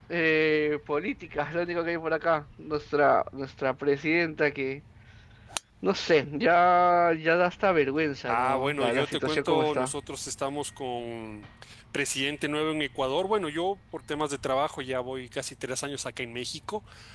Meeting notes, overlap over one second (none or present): present